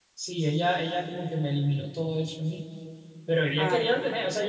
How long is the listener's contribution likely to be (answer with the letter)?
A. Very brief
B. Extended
A